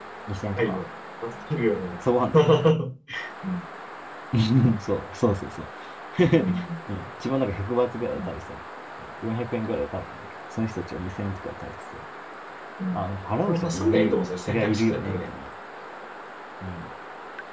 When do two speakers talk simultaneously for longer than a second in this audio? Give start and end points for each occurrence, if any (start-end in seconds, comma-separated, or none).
13.5-15.3